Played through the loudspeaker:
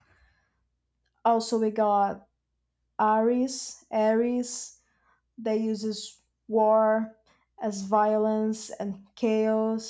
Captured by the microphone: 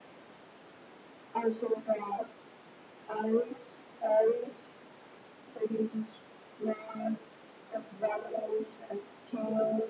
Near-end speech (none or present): none